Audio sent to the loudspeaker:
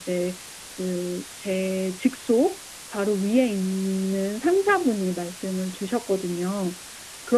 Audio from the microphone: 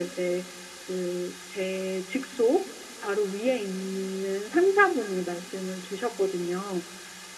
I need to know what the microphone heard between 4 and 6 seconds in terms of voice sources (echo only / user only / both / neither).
echo only